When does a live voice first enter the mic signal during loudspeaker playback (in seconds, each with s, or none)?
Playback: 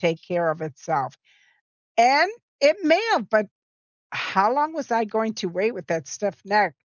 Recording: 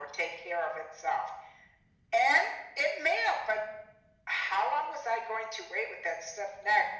none